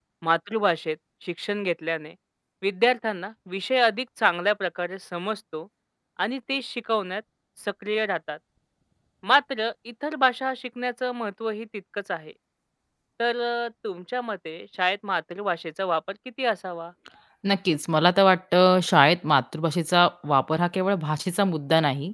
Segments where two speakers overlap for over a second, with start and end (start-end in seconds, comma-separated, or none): none